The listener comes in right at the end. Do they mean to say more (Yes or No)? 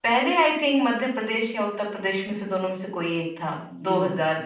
Yes